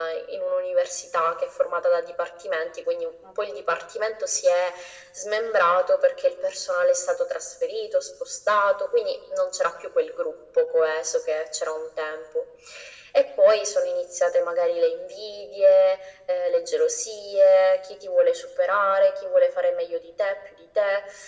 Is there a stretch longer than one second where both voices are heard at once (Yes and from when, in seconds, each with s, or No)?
No